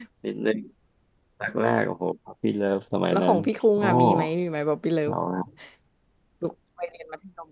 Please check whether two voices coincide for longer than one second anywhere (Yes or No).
No